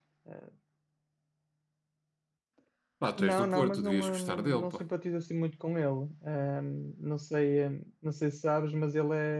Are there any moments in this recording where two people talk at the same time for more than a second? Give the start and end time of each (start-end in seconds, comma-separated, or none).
3.2-4.8